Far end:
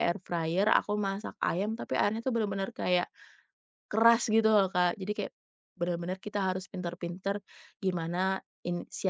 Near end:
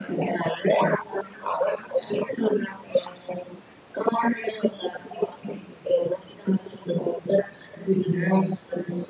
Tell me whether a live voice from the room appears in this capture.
No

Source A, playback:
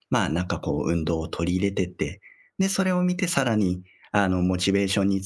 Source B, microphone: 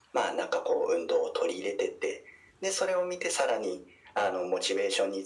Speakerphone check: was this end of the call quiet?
Yes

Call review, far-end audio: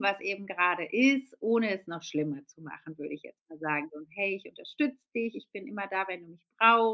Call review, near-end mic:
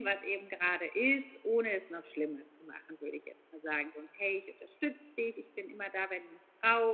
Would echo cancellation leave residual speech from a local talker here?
No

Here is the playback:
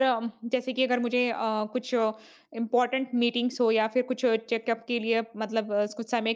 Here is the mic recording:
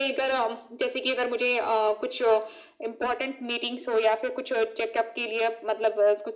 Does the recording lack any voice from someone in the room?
Yes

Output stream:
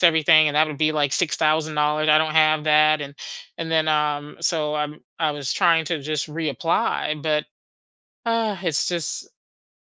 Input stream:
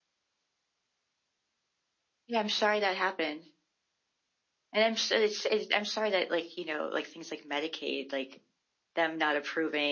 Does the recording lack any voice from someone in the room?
No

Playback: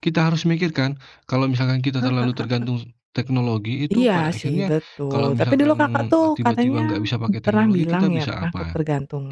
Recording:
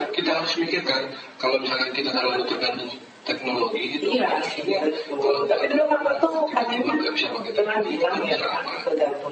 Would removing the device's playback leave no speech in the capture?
Yes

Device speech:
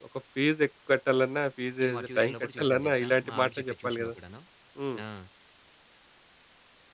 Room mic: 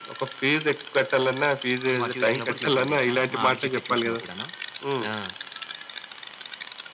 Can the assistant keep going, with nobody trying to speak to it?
Yes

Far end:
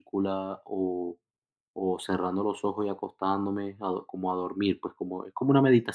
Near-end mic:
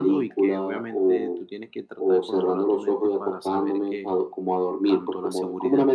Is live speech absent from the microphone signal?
No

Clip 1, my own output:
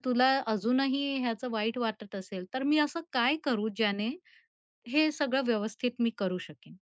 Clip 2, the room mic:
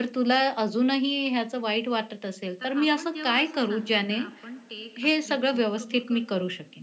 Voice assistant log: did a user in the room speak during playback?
Yes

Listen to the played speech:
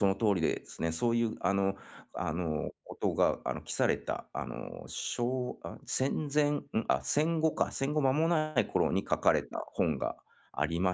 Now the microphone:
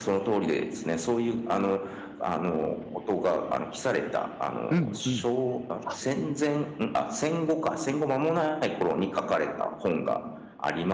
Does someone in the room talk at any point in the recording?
Yes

